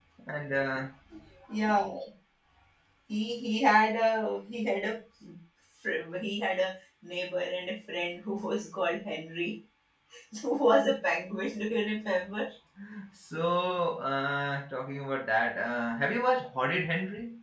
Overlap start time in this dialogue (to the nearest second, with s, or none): none